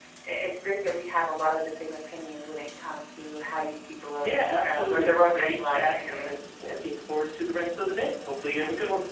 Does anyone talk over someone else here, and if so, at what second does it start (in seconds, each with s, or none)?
4.2 s